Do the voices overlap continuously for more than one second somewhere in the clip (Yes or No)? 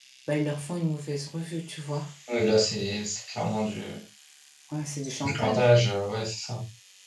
No